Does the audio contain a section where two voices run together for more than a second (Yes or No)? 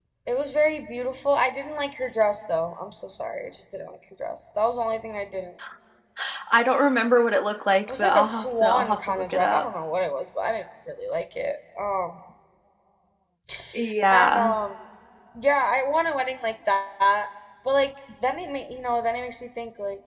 Yes